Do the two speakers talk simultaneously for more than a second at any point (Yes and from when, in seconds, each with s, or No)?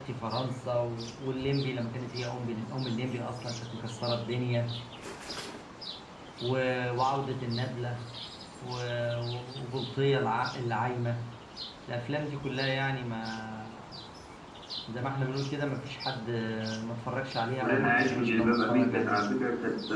Yes, from 17.6 s